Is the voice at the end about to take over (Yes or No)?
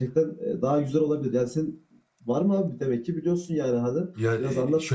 Yes